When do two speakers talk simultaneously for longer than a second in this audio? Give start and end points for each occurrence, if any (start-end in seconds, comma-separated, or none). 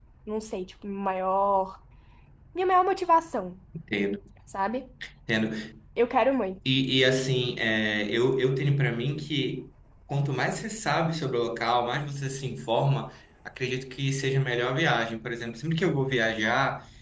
none